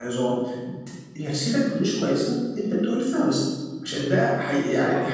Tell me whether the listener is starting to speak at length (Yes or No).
No